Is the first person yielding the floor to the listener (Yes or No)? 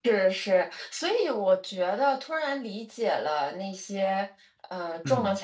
No